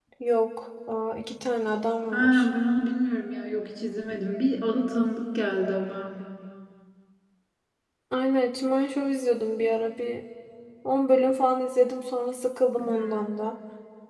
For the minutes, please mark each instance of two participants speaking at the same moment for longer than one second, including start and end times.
none

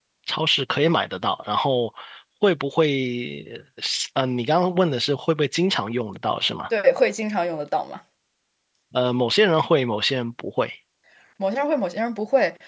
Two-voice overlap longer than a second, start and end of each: none

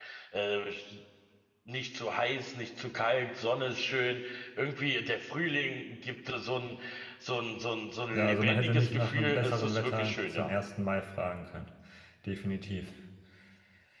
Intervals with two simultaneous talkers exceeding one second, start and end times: 8.1-10.5

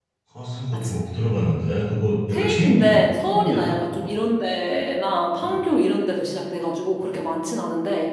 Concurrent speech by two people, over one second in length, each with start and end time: 2.3-4.2

